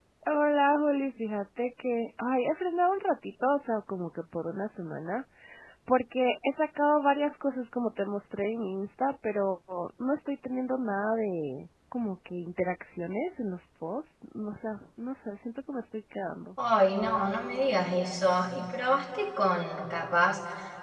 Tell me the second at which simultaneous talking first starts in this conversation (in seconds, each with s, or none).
none